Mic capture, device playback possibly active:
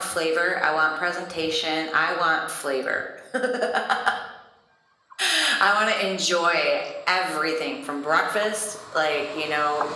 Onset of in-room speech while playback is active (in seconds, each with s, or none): none